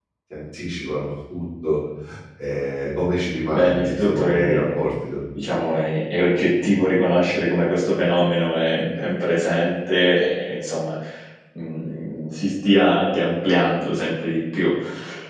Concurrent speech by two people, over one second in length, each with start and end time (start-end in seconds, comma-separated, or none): 3.5-4.8